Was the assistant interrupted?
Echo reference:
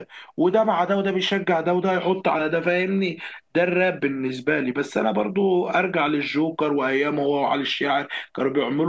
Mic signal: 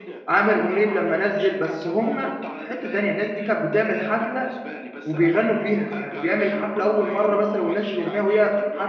Yes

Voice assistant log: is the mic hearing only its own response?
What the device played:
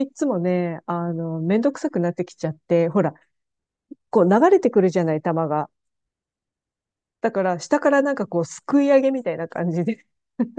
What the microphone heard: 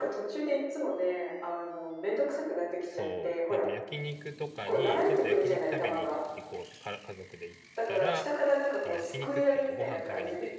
No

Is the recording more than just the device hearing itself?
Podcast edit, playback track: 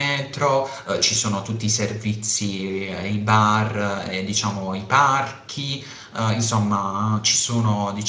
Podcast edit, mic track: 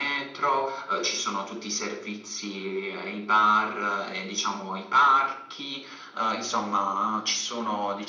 No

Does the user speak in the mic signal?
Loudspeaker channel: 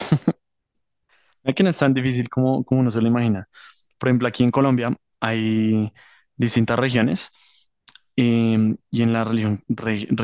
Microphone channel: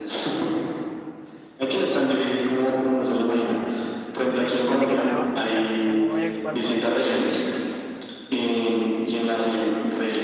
Yes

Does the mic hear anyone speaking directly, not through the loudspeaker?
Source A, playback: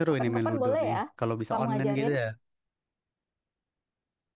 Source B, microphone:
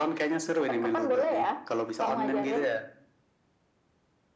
No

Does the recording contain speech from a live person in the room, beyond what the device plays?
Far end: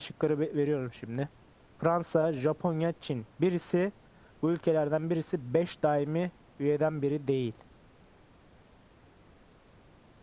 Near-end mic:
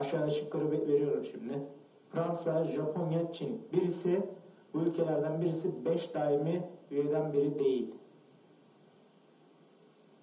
No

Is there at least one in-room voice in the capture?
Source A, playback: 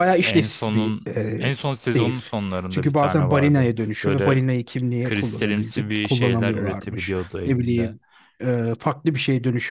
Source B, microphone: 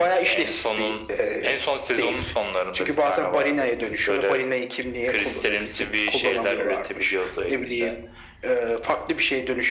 No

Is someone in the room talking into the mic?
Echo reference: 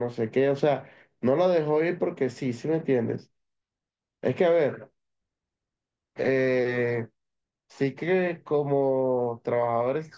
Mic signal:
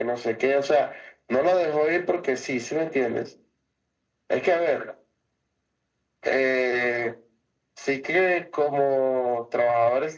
No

